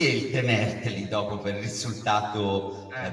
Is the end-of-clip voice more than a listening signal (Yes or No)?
No